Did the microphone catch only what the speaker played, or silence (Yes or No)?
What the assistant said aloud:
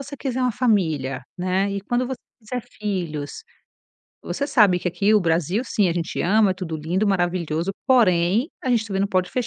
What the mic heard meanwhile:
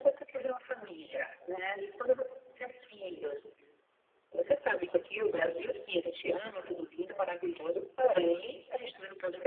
Yes